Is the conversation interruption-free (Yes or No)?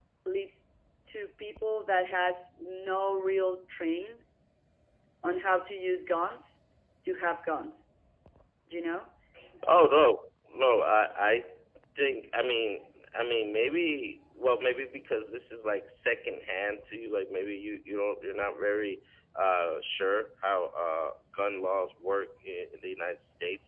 Yes